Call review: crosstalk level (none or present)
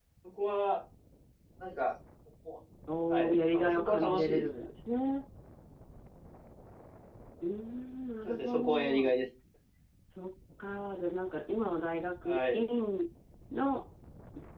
present